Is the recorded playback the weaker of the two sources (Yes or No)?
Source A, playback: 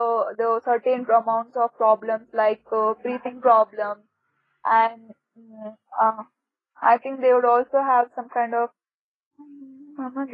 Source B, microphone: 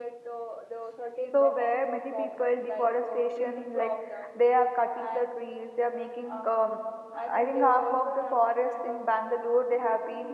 Yes